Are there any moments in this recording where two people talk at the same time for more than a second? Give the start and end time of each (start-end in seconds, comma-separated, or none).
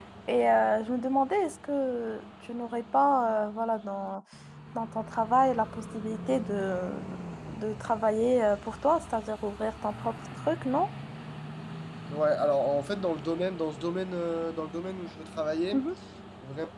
none